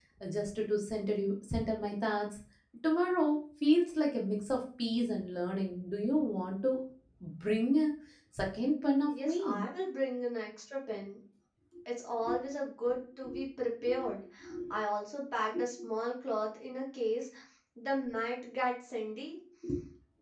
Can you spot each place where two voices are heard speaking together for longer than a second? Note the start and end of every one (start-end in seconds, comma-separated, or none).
none